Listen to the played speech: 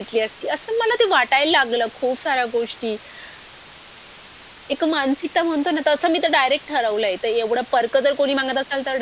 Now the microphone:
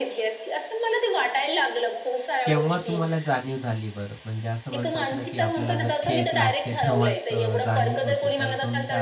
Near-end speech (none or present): present